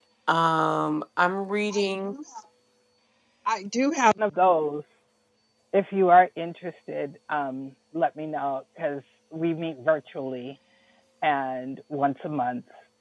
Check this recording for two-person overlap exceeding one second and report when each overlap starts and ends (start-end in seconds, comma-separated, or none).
none